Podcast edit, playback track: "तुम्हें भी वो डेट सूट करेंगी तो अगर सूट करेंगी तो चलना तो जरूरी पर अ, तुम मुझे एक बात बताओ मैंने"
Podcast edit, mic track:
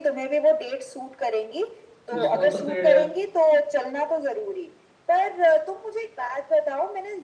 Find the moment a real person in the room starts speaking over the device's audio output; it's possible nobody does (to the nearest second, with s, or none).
2 s